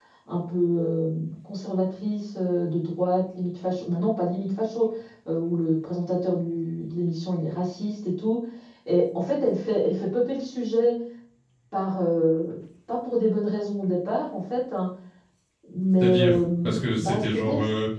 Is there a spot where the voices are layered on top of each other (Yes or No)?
Yes